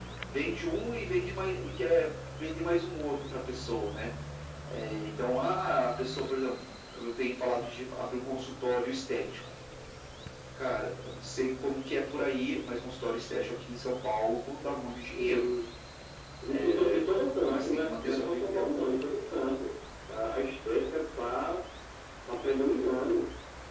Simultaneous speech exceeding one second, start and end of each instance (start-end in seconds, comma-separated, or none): 17.5-18.7